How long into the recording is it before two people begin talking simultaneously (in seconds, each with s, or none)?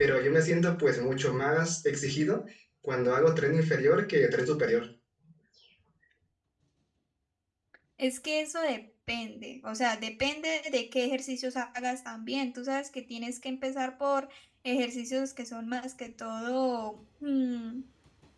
none